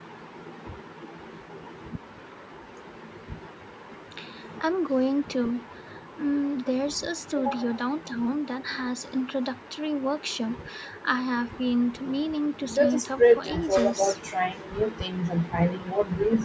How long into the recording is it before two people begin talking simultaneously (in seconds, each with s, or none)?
12.7 s